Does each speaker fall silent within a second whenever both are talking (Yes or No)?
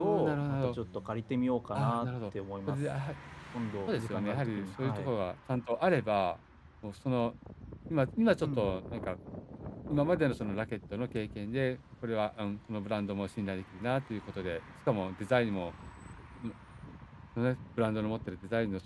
No